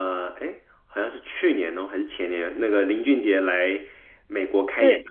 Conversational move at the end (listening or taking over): listening